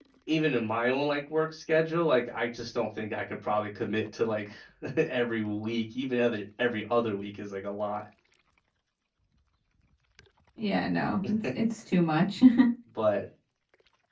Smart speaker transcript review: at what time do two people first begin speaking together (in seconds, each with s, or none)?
none